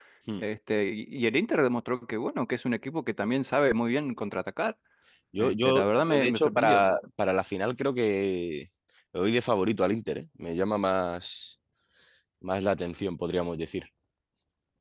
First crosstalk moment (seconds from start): 5.4 s

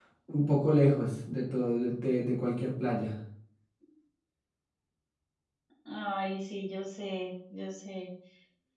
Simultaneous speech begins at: none

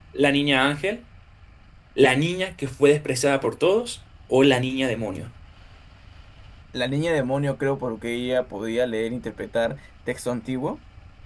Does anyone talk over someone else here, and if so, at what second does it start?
none

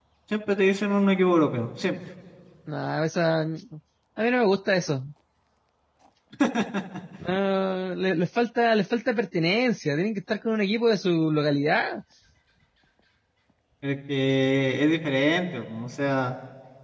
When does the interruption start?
none

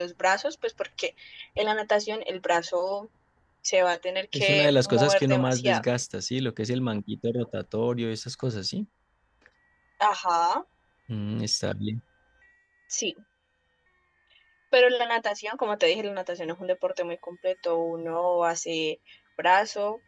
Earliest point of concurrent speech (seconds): 4.3 s

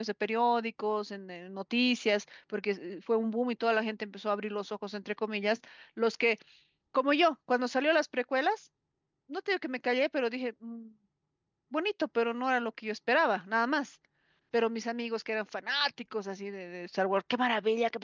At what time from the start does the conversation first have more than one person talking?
none

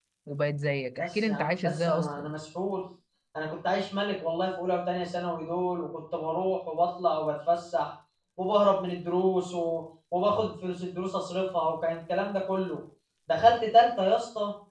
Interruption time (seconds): 1.0 s

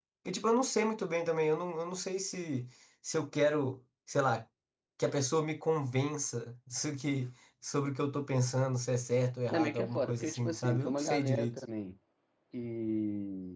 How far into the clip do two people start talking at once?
9.5 s

